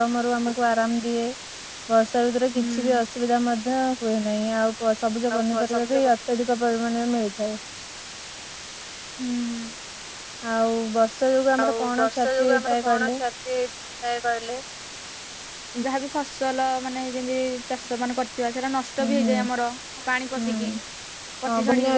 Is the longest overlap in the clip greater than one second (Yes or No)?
Yes